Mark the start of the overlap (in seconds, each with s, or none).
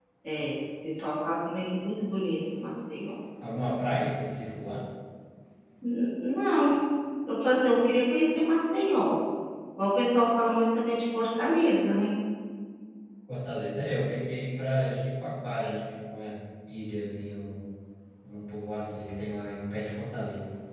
none